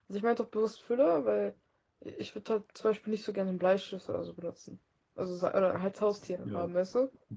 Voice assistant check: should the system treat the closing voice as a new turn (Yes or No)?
Yes